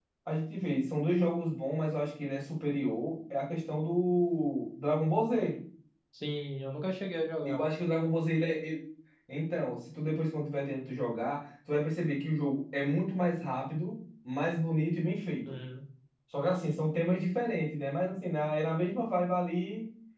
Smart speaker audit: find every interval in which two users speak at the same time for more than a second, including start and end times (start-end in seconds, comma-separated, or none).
none